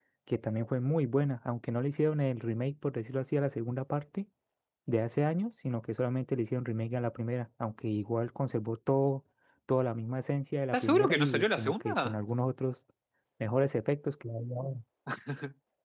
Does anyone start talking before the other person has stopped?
Yes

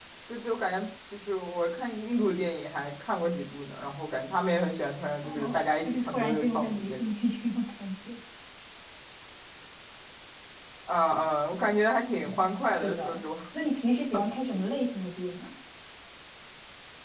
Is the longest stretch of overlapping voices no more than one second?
No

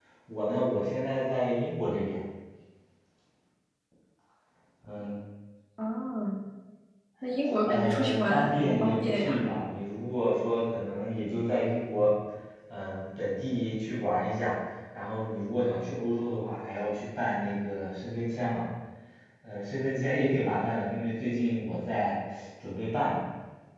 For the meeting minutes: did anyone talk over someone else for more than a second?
Yes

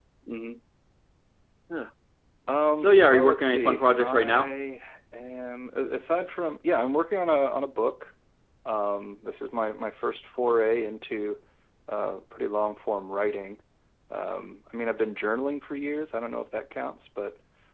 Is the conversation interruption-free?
No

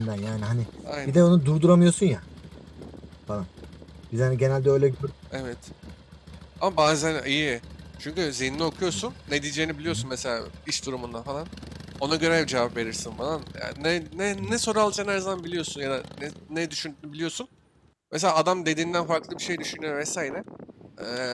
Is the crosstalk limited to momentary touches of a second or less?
Yes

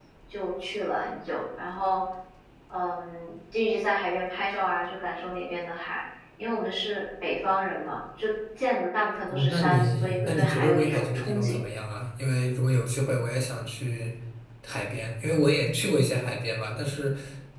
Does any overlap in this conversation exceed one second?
Yes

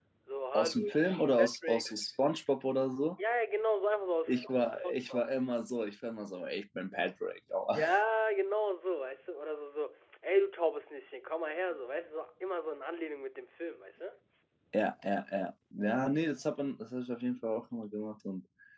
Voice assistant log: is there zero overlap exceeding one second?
No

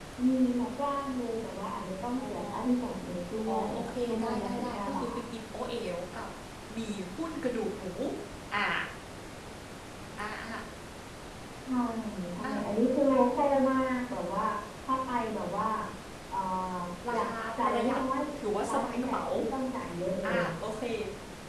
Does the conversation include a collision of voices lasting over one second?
Yes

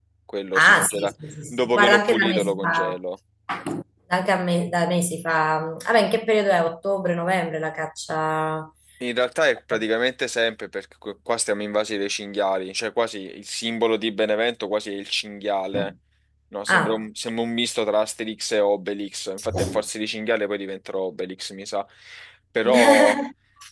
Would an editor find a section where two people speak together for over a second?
Yes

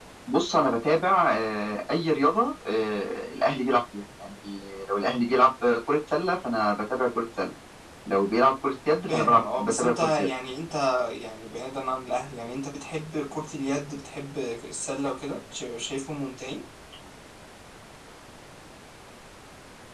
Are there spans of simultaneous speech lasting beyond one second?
Yes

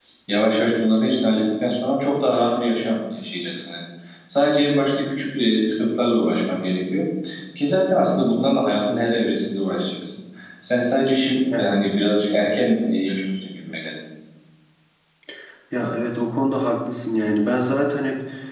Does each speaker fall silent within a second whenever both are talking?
Yes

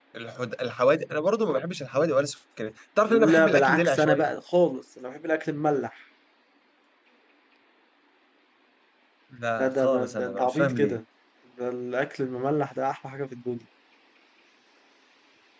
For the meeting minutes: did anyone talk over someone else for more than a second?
Yes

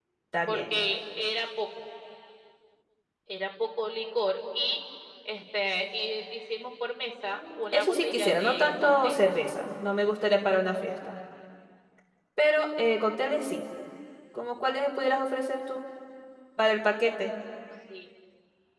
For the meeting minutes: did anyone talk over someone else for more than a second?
Yes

